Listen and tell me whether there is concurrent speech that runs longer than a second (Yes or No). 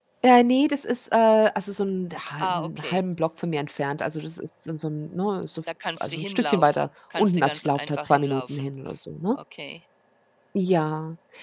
Yes